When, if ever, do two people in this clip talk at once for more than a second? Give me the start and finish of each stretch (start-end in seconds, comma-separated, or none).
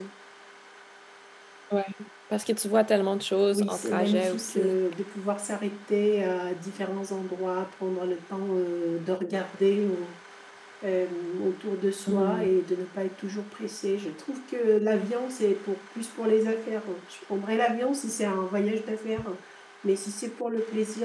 3.5-4.8